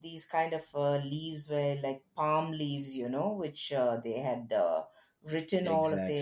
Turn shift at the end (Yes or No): No